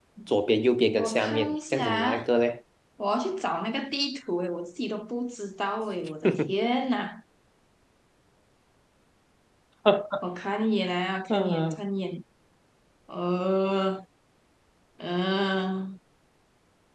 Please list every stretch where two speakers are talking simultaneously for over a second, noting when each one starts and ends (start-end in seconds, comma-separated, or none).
1.0-2.2